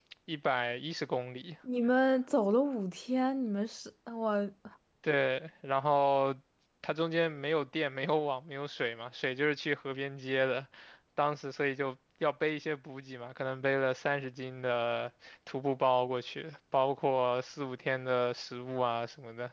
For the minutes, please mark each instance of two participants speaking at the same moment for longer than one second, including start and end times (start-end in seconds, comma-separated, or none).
none